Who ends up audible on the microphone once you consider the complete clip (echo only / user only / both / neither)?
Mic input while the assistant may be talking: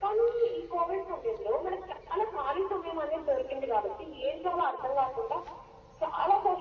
echo only